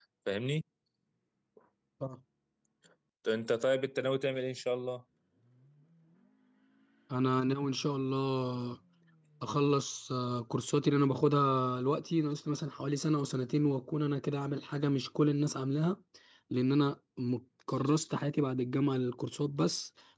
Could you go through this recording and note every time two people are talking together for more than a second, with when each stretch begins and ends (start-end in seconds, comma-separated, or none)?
none